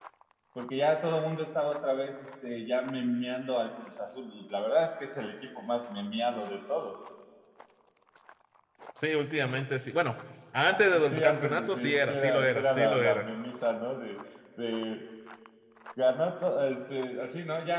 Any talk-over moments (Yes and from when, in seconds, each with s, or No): Yes, from 10.7 s